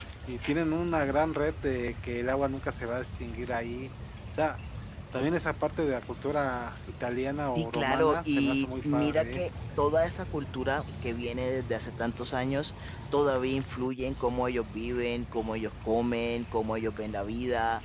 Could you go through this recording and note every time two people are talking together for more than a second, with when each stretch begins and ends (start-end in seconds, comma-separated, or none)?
7.5-9.4